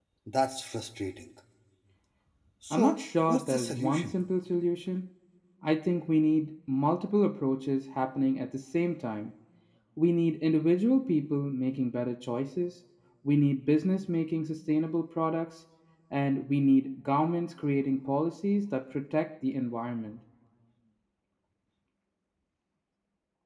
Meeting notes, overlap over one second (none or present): present